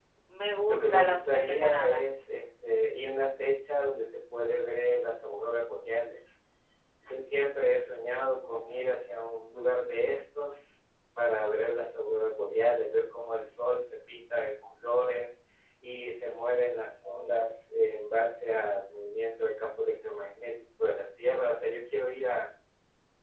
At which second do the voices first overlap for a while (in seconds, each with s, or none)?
0.7 s